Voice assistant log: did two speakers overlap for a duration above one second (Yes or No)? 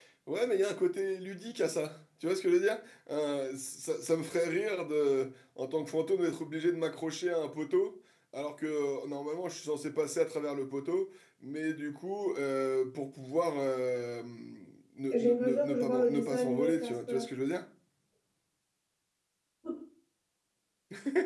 Yes